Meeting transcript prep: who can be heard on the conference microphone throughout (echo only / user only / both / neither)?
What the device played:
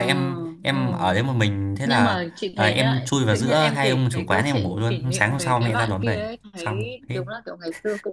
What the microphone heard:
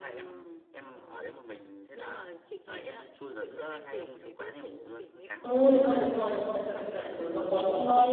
both